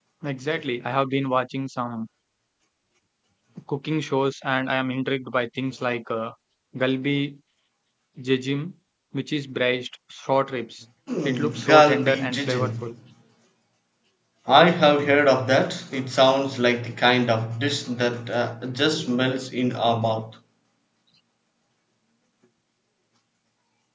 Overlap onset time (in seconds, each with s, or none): 11.1 s